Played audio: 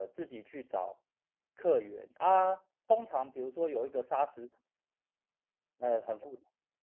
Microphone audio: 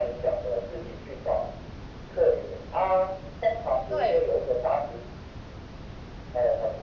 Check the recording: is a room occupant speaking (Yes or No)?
Yes